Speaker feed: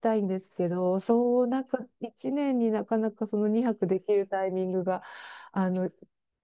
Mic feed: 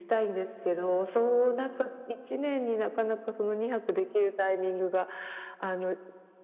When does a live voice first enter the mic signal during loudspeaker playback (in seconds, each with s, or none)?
none